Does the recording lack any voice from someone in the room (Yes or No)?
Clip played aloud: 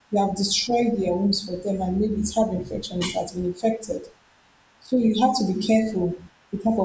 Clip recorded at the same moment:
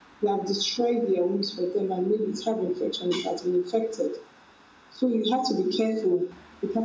Yes